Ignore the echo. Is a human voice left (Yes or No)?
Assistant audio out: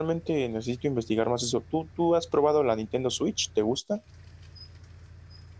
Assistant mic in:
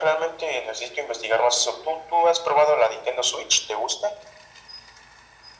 No